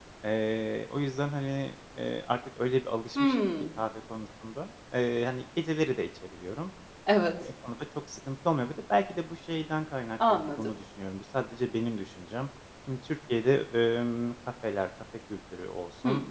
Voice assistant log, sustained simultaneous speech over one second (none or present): none